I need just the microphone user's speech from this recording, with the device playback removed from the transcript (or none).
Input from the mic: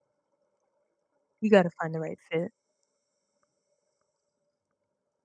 You got to find the right fit.